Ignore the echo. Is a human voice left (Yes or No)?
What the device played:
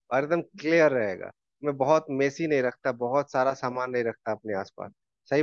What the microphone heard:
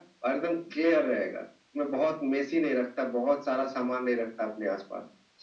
No